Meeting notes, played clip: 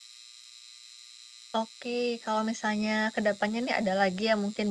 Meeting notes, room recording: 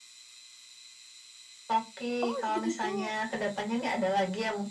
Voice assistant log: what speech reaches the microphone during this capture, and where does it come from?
both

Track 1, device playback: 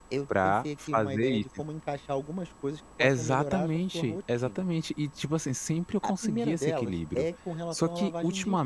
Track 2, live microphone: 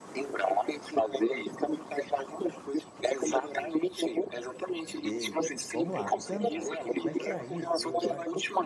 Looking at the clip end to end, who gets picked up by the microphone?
both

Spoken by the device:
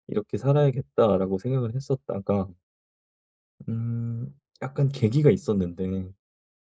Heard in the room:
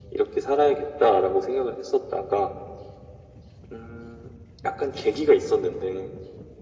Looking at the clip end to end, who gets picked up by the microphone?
echo only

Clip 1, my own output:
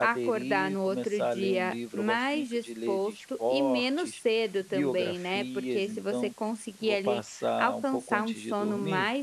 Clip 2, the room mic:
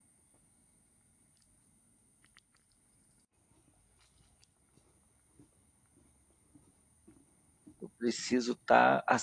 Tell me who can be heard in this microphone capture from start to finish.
user only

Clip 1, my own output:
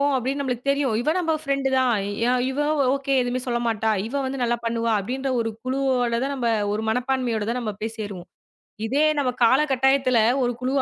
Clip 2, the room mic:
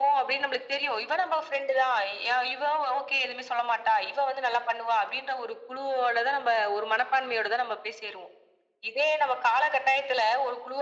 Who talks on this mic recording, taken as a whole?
echo only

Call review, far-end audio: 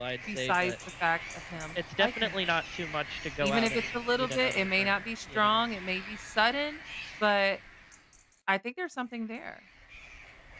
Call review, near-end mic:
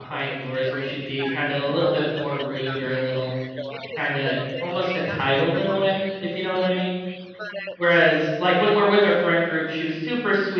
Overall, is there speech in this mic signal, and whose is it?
both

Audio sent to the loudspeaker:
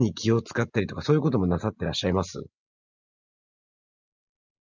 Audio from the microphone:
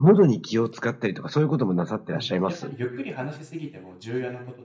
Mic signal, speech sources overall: both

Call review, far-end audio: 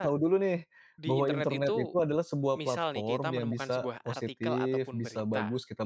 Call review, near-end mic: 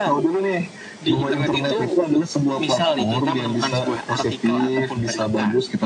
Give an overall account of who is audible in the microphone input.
echo only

